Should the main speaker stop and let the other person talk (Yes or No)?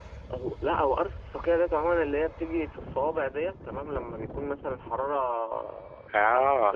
No